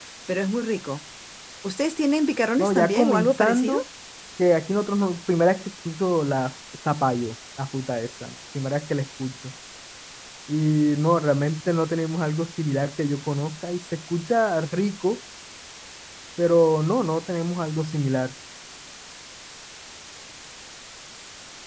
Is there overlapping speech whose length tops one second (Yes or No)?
Yes